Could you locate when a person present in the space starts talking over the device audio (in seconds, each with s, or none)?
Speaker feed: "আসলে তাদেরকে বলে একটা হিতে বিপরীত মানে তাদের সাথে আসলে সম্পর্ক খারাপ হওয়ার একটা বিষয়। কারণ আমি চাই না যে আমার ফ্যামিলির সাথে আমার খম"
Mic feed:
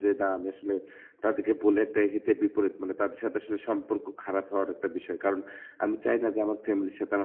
none